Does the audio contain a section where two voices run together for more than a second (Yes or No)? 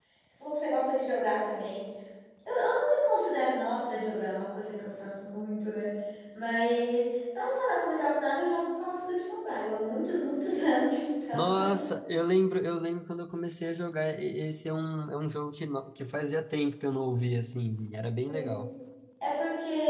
No